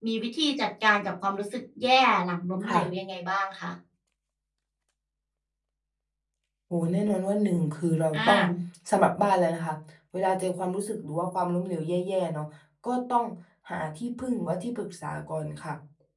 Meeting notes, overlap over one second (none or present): none